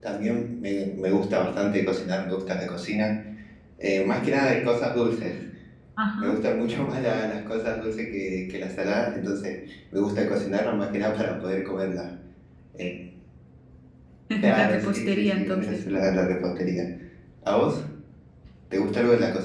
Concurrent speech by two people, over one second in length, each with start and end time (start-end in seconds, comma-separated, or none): 14.6-16.0